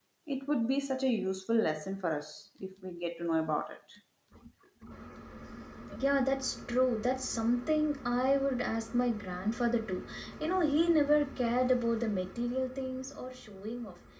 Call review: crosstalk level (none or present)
none